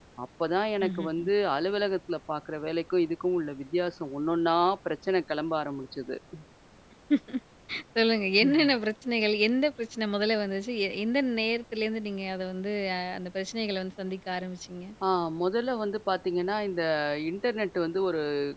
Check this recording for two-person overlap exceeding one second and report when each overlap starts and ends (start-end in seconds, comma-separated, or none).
none